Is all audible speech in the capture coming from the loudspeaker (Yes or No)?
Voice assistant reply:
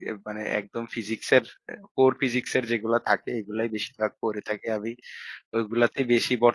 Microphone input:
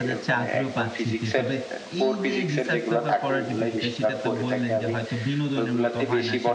No